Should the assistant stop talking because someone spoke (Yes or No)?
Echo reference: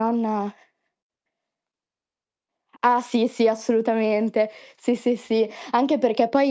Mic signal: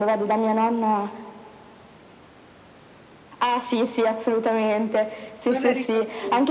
Yes